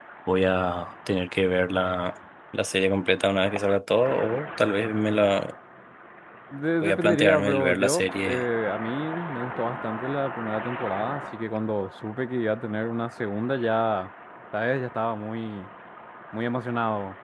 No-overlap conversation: No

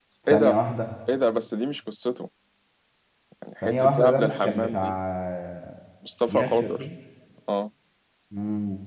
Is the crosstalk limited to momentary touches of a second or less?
No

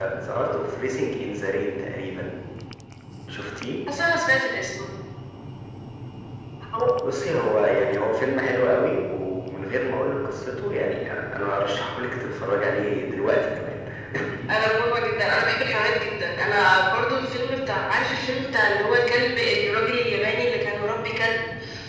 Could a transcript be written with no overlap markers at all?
Yes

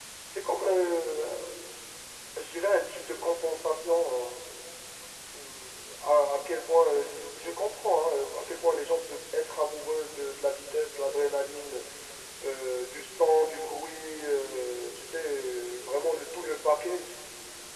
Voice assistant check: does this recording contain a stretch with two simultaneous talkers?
No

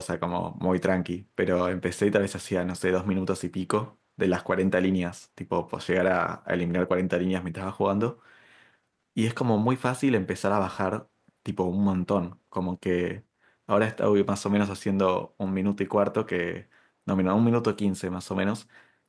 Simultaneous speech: No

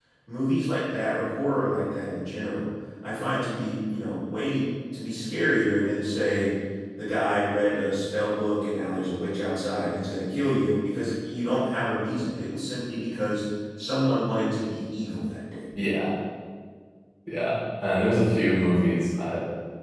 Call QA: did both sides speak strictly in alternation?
Yes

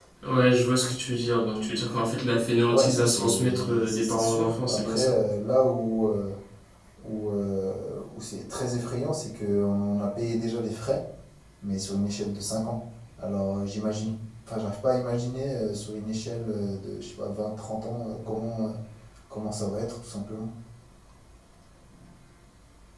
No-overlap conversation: No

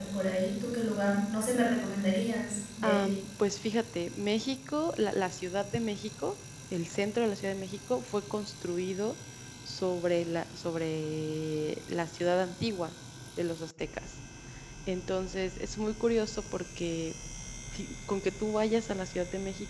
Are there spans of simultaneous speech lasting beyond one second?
No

